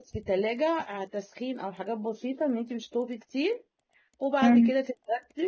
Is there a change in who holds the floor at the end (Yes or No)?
No